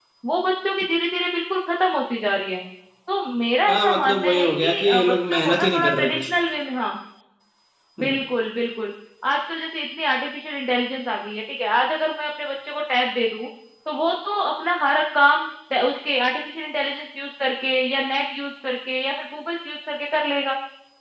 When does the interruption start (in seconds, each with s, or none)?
3.7 s